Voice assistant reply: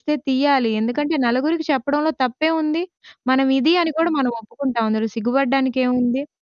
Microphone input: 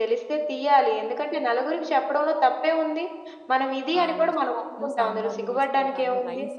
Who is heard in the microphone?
both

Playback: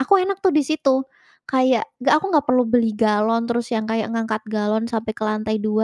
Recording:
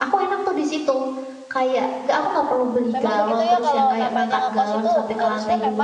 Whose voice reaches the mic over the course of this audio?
both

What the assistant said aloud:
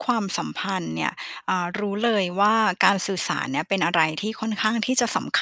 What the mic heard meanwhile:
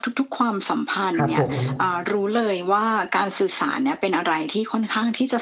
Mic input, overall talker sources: both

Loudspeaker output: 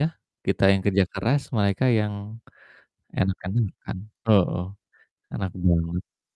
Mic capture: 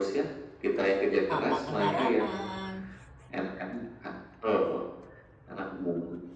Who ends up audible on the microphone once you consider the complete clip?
both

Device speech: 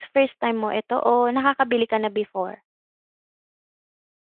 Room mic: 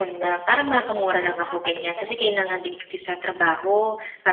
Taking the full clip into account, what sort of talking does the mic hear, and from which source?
both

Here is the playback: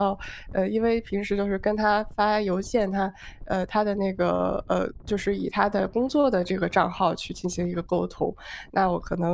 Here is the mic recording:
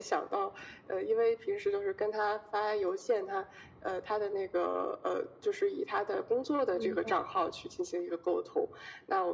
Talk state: both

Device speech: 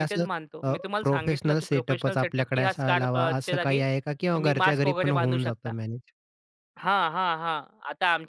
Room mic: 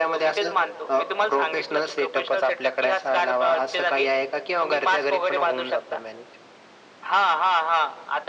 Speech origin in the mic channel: echo only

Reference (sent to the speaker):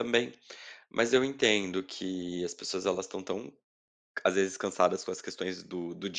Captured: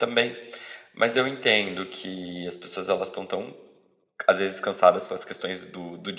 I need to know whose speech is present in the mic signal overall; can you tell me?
echo only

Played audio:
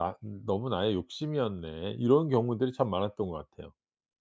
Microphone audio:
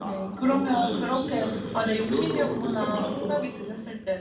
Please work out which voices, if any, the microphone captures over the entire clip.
both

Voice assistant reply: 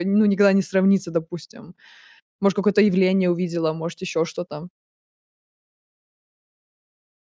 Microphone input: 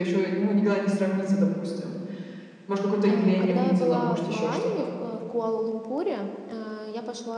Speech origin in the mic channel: both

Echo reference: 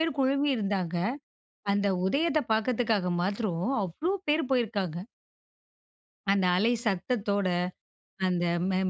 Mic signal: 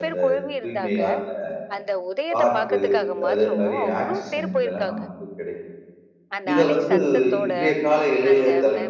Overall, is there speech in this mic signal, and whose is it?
both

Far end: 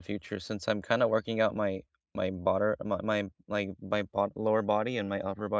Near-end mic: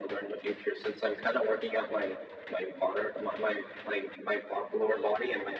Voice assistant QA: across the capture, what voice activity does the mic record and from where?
echo only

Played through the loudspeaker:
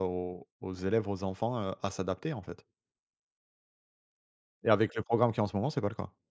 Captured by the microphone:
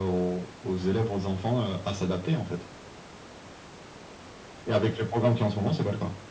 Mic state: echo only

